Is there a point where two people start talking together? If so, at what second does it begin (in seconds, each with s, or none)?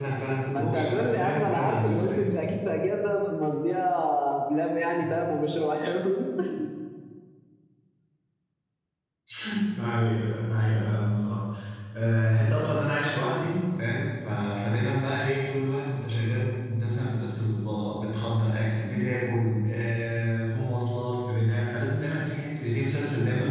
0.5 s